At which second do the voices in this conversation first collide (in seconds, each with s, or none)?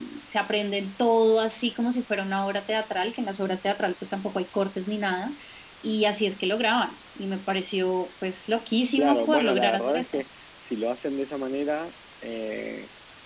8.9 s